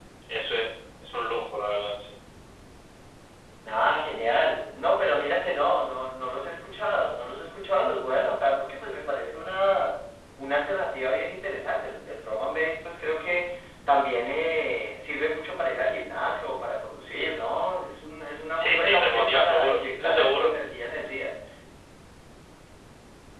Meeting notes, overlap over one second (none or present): present